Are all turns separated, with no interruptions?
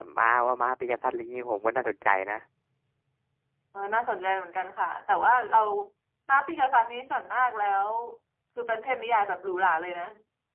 Yes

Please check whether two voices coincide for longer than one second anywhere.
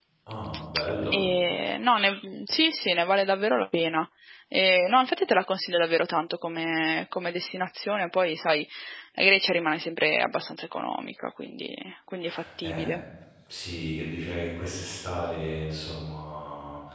No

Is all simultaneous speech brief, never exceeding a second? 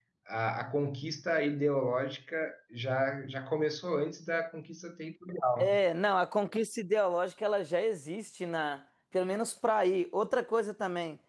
Yes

